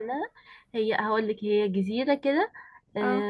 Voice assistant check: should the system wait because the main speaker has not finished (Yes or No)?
Yes